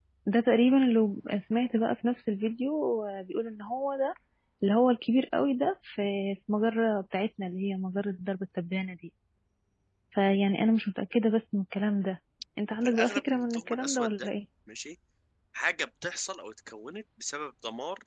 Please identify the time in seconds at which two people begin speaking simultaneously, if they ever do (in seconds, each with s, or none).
12.8 s